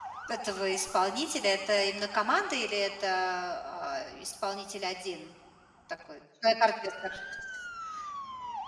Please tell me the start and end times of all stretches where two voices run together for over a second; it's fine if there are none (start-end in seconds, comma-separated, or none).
none